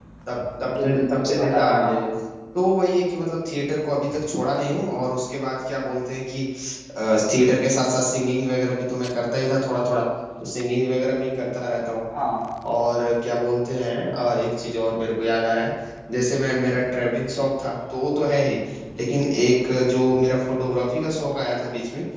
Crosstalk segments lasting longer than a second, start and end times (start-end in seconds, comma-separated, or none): 0.8-2.0